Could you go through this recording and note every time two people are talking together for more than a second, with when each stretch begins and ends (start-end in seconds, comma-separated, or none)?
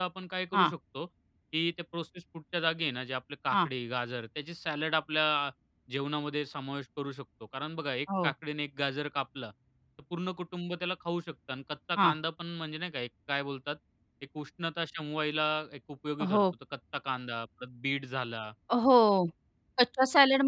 none